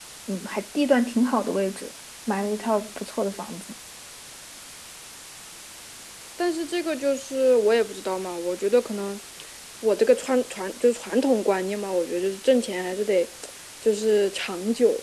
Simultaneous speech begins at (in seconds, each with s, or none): none